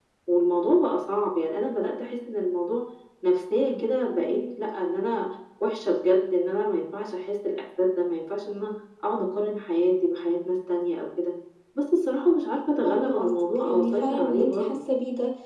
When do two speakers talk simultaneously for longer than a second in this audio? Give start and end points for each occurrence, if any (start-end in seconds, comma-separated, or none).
12.8-14.8